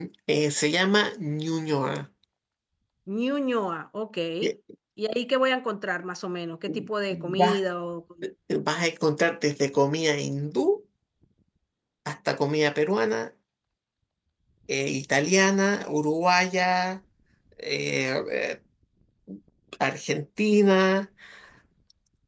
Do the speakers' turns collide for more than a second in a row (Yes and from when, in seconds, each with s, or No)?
No